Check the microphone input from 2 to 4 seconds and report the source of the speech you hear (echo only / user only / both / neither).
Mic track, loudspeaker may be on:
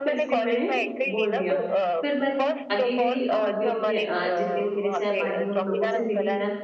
both